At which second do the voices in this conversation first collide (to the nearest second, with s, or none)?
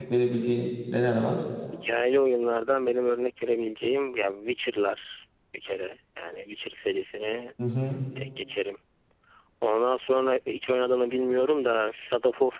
none